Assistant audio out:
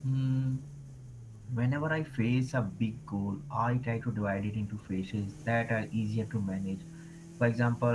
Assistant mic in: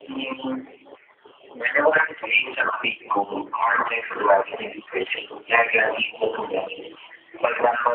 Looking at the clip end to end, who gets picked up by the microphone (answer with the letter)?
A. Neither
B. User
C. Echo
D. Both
C